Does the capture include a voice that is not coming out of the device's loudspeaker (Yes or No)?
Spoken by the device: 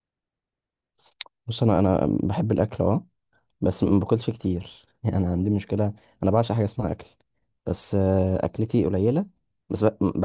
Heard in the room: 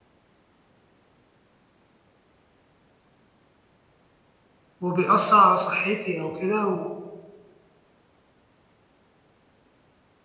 Yes